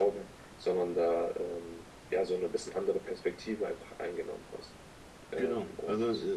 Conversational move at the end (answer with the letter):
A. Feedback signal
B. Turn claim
B